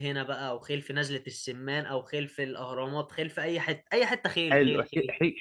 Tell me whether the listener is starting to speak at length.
Yes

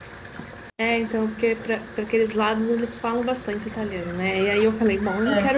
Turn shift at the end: No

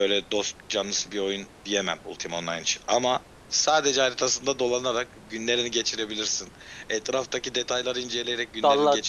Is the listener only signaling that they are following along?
No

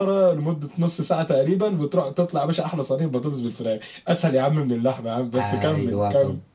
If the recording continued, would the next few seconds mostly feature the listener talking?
Yes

